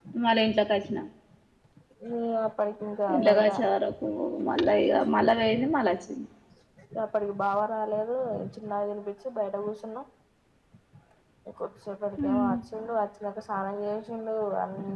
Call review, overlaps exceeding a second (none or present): none